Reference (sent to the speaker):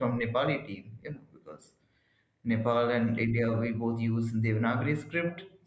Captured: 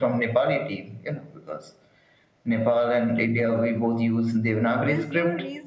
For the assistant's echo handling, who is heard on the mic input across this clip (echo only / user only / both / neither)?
both